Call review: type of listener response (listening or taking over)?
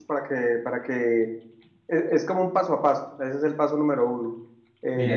listening